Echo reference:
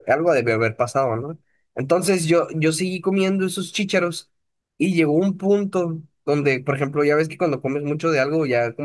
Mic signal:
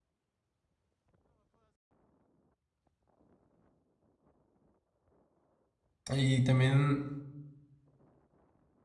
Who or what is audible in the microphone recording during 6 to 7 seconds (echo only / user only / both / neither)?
user only